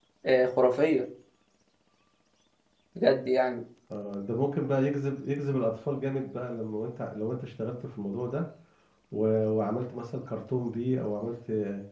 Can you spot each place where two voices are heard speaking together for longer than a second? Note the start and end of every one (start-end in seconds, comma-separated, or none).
none